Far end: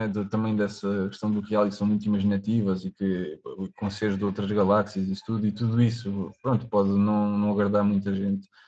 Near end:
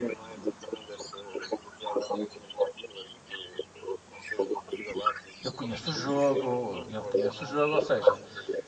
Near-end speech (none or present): present